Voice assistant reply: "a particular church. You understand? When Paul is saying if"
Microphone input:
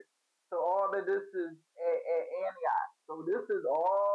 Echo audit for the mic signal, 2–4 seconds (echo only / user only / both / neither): user only